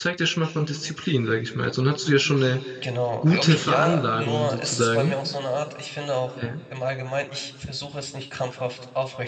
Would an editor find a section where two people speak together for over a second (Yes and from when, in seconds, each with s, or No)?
Yes, from 3.2 s